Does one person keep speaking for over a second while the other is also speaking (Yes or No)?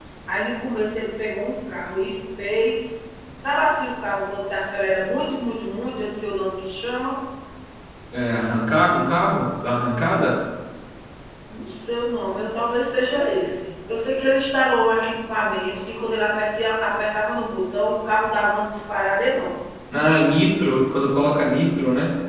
No